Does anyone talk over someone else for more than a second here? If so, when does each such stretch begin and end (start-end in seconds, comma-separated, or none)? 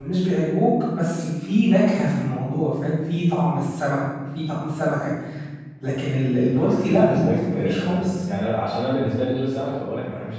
6.5-8.2